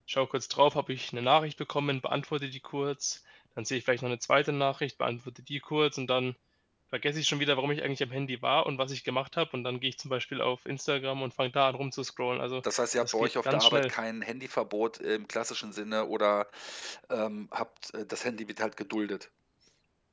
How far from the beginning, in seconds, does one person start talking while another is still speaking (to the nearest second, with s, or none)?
13 s